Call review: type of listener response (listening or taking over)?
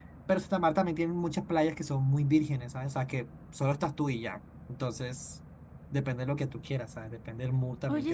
taking over